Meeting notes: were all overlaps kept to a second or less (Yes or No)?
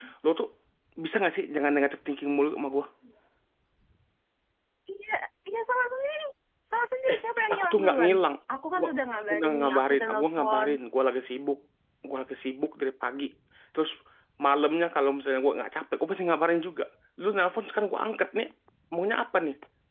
No